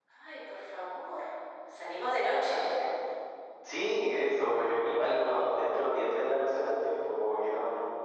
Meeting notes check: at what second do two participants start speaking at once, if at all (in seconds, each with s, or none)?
none